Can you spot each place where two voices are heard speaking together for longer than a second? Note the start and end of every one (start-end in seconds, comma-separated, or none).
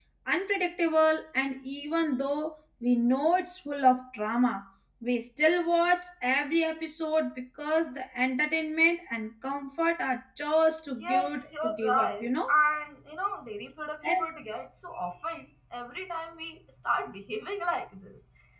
11.0-12.5